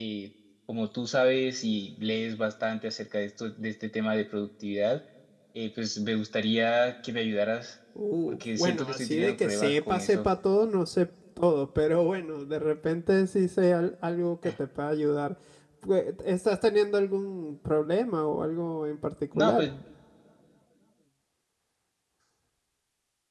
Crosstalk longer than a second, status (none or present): present